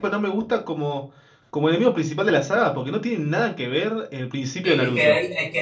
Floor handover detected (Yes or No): Yes